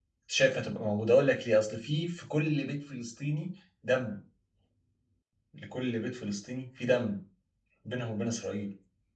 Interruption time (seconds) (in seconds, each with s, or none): none